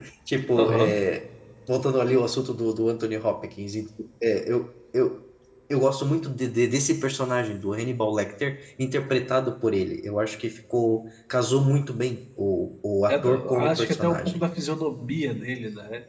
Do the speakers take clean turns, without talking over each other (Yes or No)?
No